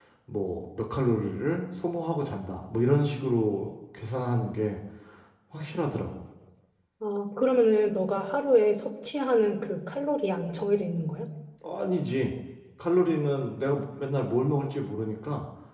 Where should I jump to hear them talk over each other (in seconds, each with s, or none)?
none